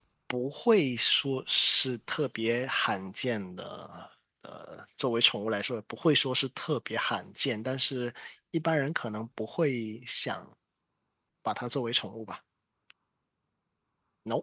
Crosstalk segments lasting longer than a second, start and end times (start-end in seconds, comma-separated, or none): none